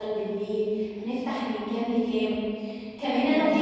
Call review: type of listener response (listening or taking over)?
listening